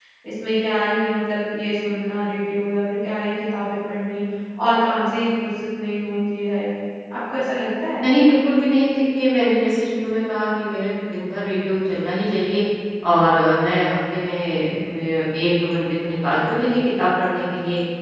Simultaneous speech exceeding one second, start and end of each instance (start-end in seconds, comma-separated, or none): none